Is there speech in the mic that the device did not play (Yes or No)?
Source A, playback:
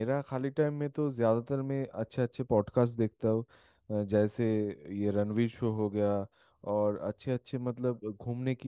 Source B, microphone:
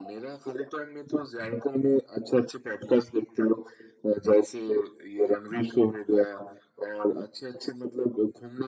No